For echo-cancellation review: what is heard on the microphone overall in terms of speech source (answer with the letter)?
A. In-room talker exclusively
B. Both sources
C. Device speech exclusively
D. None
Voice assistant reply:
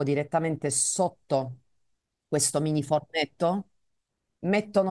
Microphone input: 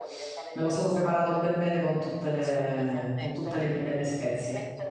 B